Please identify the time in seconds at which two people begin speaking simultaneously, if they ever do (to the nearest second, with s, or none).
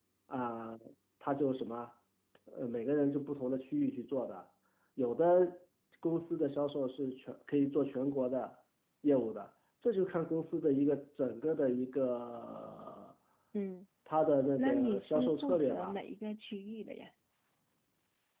15 s